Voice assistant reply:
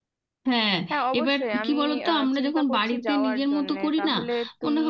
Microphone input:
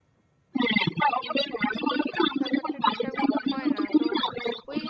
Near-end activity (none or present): present